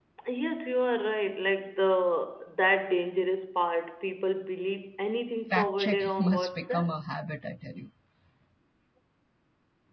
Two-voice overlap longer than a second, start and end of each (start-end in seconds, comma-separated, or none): 5.5-6.9